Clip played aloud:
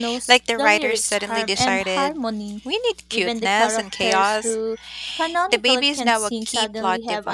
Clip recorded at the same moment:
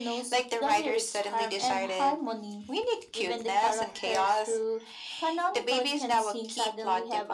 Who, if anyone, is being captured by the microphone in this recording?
echo only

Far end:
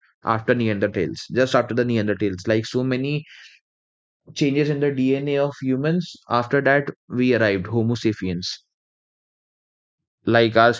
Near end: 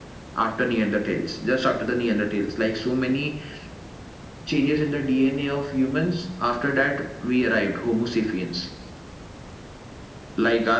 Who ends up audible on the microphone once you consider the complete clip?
echo only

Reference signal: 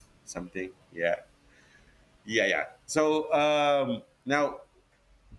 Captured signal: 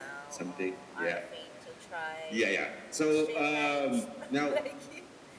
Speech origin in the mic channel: both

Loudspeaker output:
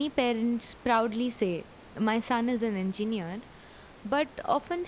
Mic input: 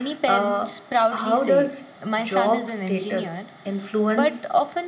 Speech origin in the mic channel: both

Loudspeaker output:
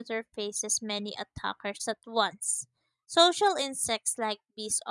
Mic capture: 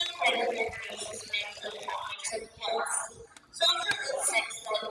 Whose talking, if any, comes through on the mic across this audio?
echo only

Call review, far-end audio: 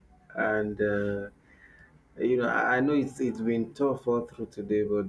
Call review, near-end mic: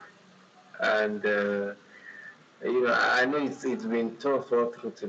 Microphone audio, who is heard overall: echo only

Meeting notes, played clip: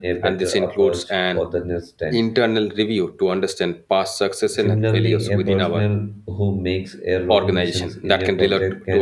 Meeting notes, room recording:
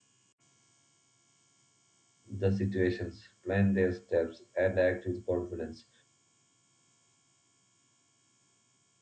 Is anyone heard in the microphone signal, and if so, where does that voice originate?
user only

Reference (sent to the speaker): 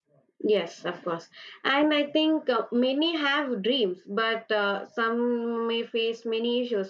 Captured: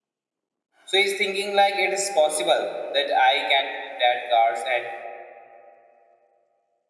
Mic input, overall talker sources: user only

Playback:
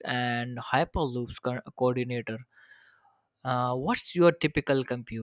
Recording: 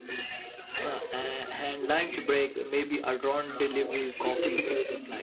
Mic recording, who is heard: both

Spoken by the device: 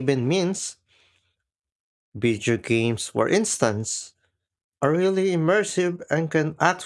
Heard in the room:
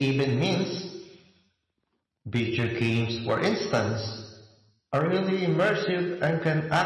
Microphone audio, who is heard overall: echo only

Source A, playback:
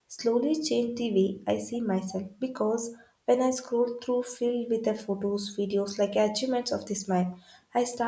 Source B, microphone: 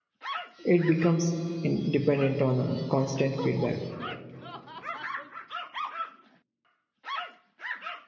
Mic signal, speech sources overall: user only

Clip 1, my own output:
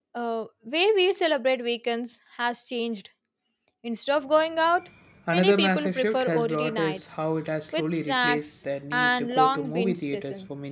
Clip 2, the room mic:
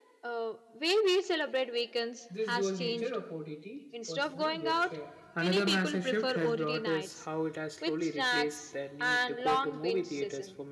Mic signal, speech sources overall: both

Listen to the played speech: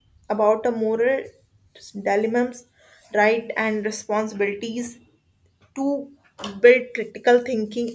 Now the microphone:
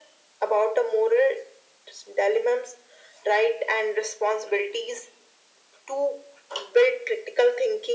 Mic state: echo only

